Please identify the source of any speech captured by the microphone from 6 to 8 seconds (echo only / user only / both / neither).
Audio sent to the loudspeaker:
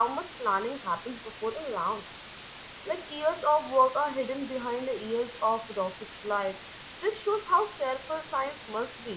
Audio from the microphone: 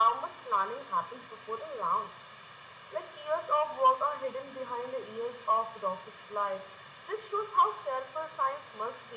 echo only